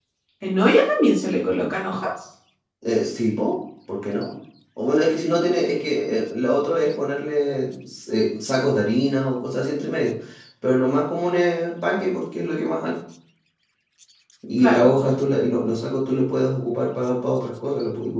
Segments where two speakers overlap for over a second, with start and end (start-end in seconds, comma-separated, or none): none